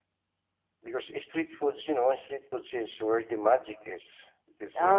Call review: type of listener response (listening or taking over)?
taking over